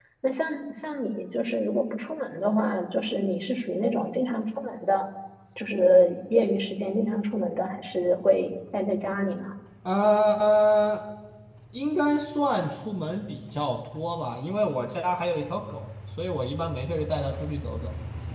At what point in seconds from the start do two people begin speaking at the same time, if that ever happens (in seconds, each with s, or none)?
none